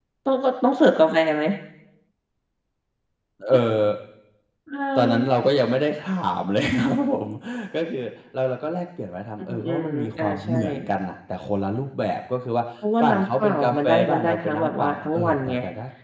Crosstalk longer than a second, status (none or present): present